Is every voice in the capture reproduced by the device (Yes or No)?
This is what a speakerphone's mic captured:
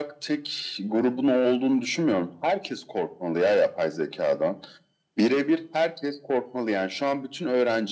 Yes